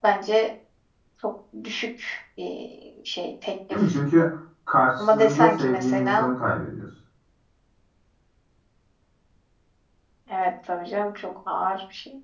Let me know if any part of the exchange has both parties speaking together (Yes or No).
Yes